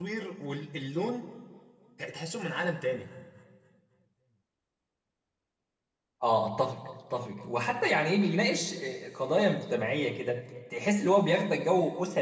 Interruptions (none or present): none